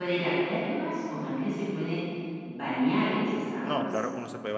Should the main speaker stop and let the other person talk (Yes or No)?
Yes